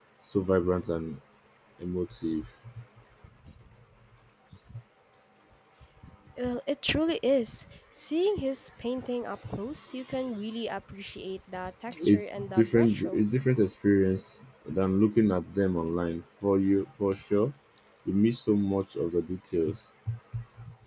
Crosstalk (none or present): present